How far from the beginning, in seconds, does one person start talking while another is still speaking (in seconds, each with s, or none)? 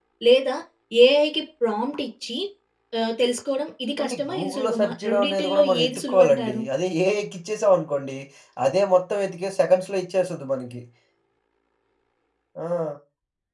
4.0 s